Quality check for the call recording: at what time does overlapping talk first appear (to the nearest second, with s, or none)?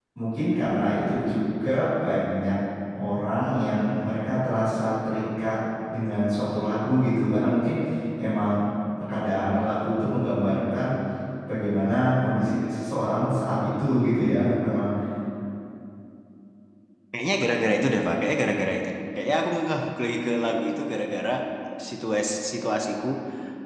none